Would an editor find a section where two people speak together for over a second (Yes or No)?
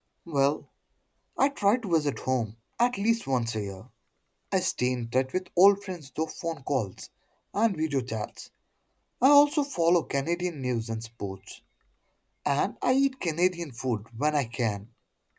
No